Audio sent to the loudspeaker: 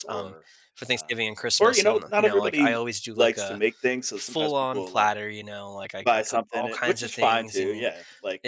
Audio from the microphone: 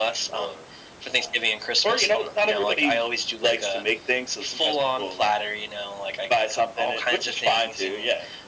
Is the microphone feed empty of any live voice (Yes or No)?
Yes